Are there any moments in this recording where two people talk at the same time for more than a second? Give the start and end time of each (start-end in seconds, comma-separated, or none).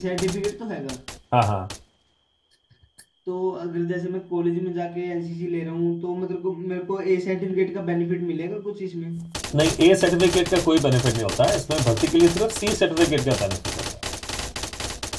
none